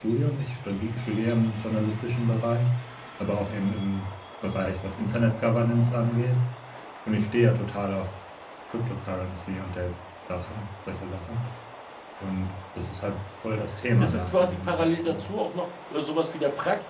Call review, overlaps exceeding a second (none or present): present